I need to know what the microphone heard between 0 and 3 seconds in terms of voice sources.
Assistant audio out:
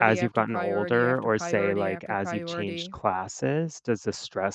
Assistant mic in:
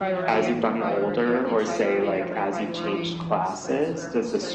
both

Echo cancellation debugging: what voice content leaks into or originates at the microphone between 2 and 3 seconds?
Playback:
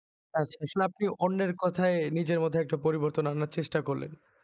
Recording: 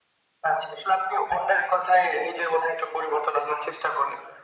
echo only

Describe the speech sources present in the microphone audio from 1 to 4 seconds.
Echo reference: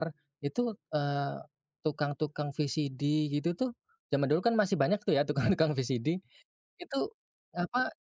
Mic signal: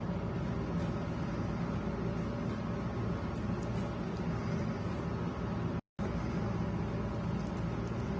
neither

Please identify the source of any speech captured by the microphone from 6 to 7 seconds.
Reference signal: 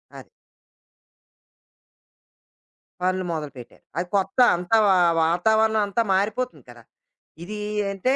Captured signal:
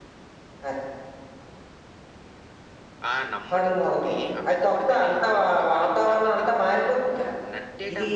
both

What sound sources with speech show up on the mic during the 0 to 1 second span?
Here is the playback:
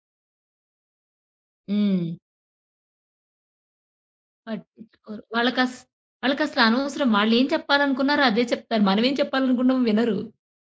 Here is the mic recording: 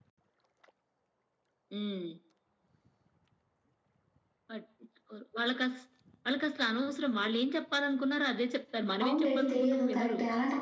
neither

